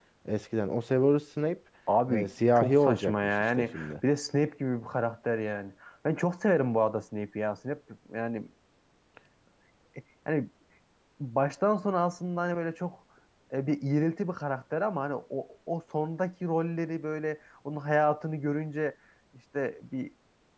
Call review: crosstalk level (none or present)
present